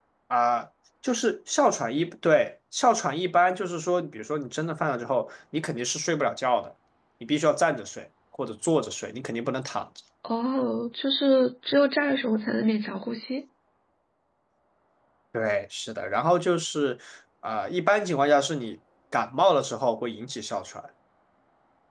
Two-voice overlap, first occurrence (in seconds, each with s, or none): none